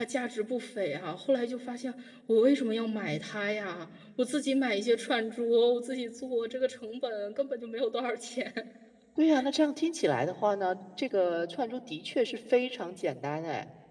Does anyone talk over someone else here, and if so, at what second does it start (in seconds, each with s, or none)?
none